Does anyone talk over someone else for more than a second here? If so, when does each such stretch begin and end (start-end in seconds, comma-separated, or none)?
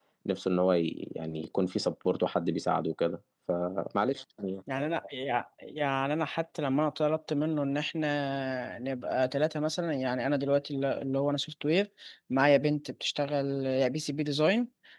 none